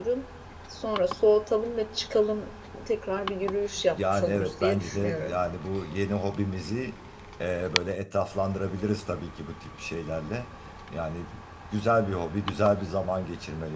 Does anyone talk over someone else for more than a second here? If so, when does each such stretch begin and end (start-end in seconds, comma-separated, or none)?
3.9-5.3